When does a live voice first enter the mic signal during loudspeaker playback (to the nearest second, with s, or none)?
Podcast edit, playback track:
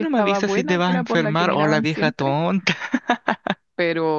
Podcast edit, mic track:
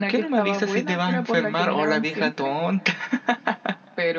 none